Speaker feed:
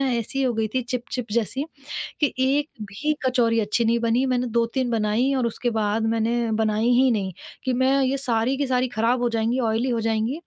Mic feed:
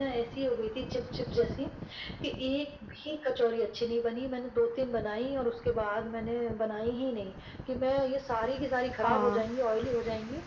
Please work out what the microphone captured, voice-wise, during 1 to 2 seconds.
echo only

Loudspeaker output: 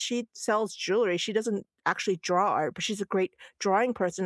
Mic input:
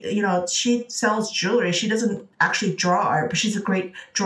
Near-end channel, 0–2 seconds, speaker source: echo only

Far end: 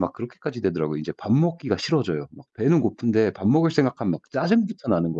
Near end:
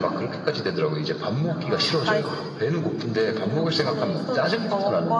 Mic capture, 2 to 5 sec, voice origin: both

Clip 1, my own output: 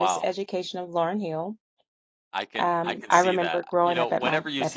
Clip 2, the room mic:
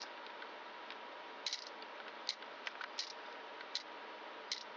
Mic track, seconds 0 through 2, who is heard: neither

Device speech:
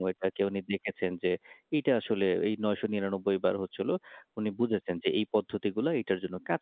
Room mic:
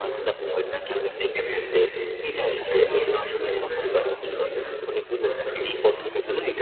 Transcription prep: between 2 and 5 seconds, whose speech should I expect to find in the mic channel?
both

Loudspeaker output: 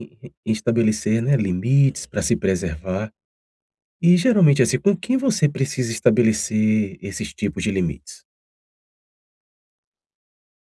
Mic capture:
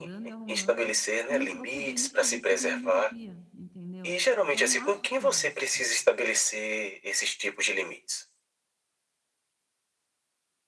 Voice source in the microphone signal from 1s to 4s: both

